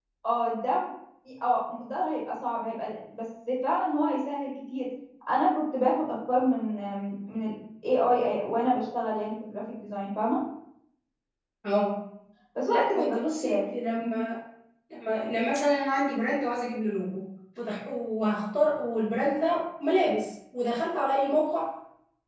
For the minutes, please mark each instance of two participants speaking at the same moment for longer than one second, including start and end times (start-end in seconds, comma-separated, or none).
12.7-14.3